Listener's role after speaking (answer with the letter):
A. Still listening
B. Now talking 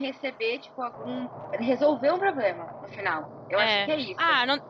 B